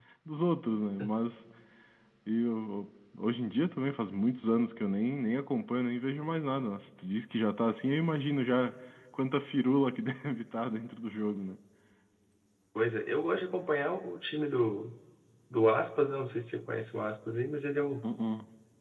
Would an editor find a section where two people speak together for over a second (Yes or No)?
No